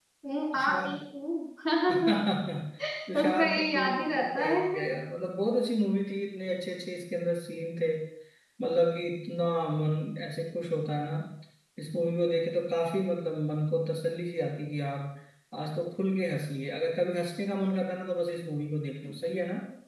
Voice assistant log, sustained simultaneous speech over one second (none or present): present